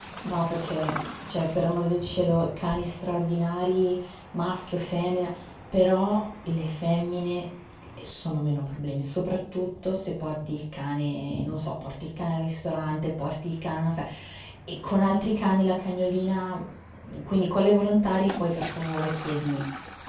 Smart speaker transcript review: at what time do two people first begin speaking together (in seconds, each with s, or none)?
none